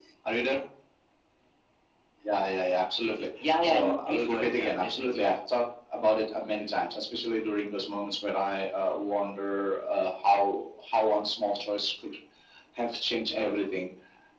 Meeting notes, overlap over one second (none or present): present